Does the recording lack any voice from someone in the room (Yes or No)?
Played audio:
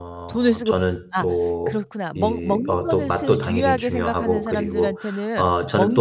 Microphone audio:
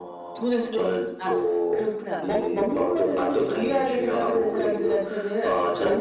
Yes